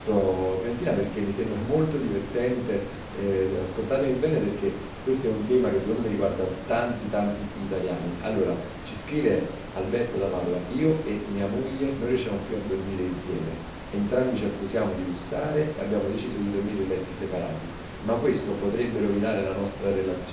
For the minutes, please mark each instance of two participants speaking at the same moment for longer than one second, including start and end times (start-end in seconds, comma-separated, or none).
none